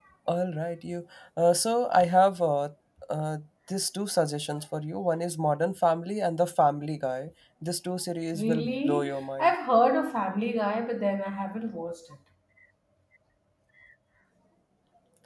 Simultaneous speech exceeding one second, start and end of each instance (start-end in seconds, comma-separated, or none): 8.3-9.5